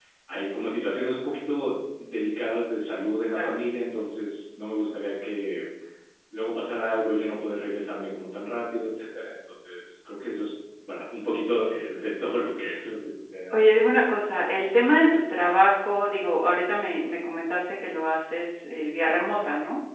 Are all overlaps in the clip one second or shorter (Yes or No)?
Yes